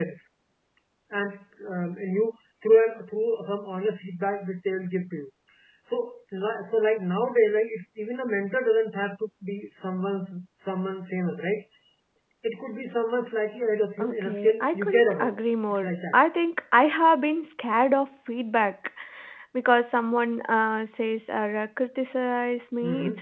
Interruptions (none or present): present